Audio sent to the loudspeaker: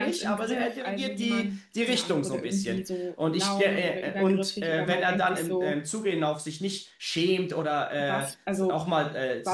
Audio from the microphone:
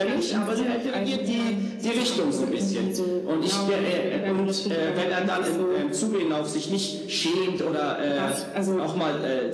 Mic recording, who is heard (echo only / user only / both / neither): echo only